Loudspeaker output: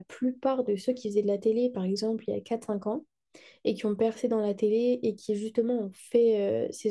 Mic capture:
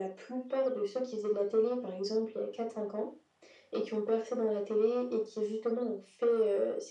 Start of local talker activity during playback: none

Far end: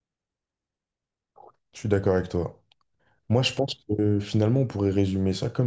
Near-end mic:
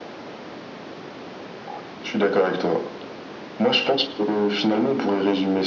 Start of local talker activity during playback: none

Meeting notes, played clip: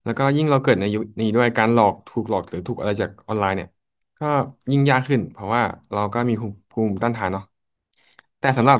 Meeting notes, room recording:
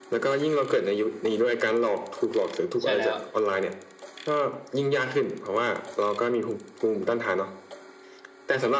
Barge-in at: 2.8 s

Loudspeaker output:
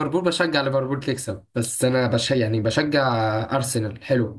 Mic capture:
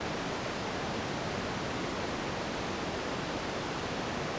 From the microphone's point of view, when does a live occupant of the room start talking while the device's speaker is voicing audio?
none

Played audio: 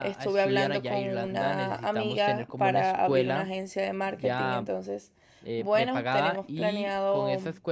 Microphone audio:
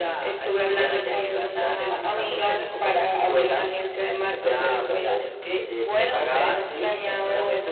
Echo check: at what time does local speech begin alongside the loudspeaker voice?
4.4 s

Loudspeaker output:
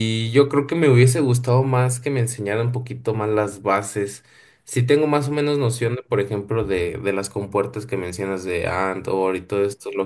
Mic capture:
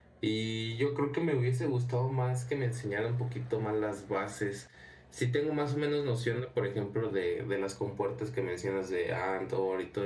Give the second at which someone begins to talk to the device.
none

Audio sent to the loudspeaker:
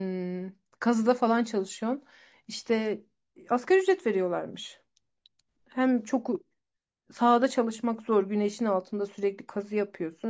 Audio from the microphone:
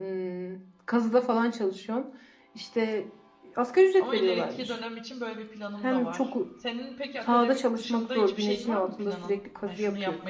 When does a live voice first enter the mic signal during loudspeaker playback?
4.0 s

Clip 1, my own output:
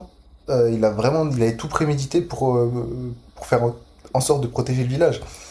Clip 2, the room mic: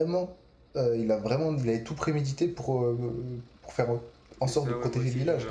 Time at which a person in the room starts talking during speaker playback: 4.4 s

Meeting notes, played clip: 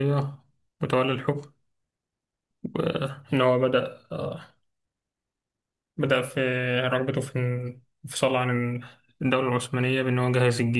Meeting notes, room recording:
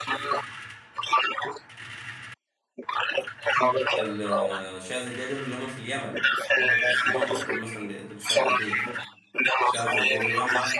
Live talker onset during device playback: 4.0 s

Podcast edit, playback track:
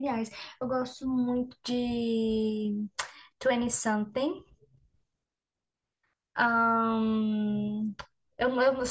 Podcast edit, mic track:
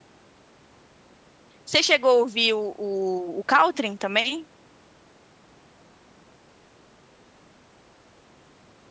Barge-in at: 1.6 s

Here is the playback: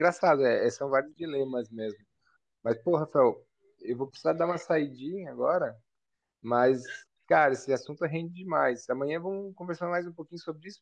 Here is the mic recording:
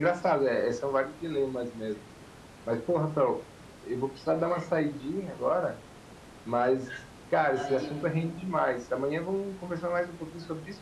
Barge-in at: 7.5 s

